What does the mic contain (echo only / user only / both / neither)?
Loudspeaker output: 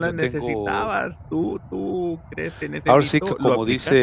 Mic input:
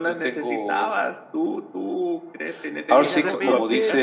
both